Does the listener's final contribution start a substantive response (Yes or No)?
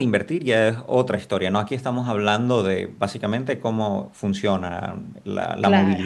No